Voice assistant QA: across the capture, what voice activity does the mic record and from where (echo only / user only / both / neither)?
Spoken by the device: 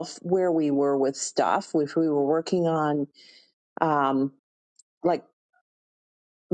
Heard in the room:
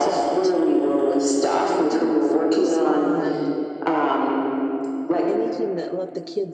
both